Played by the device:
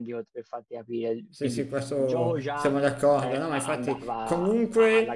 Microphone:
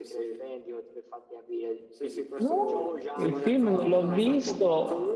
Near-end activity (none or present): present